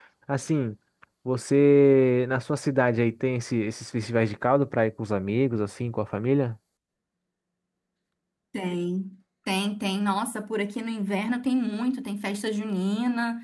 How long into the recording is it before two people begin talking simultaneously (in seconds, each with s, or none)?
none